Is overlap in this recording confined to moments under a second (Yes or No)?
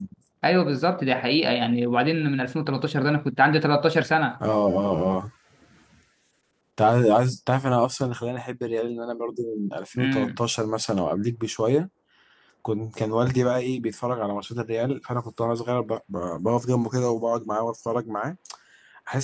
Yes